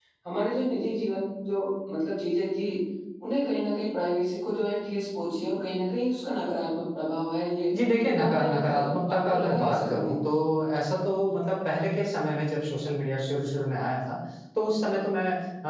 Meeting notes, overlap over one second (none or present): present